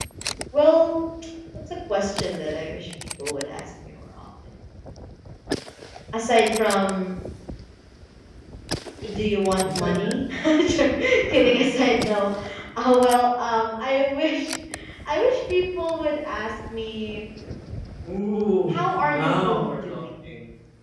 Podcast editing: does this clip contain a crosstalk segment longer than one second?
Yes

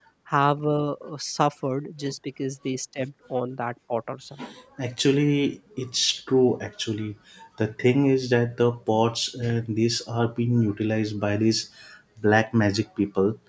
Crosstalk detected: No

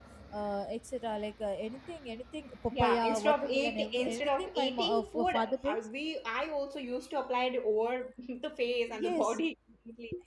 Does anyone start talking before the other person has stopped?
Yes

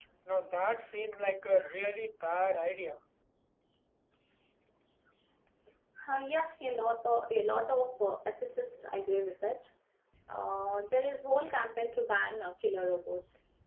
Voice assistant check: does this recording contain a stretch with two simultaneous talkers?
No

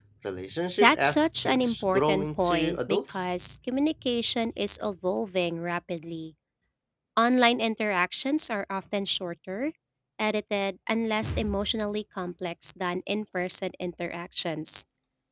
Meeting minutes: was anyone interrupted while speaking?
Yes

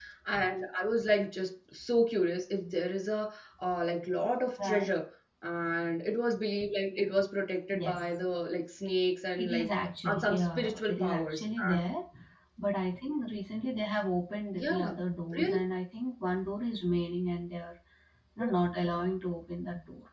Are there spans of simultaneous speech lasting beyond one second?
Yes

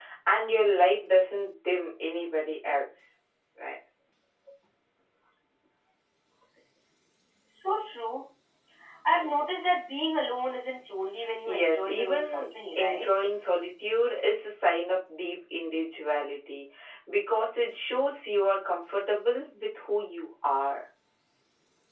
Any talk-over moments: Yes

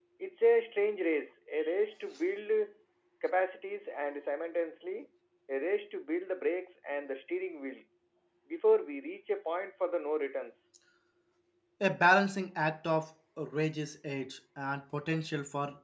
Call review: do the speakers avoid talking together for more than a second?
Yes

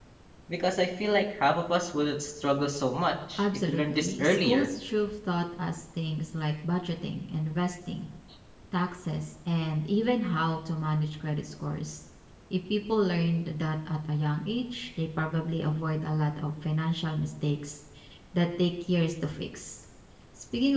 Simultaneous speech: Yes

